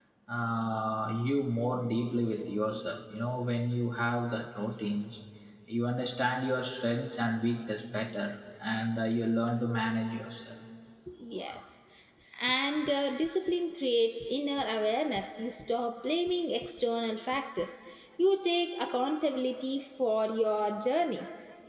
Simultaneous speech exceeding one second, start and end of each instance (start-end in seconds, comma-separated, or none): none